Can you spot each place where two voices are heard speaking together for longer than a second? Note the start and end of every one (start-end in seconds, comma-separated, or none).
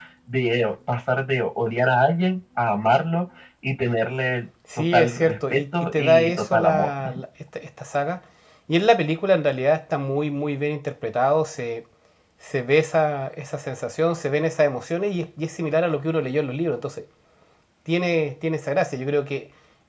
4.9-6.9